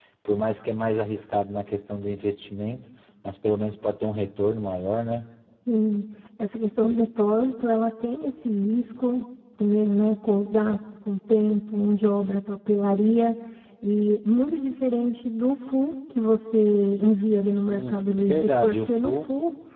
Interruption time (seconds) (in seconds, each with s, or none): 17.7 s